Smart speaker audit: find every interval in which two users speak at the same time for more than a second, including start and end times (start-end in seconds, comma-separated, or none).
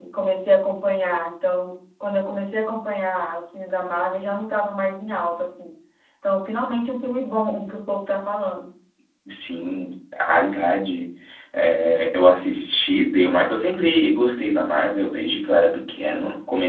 none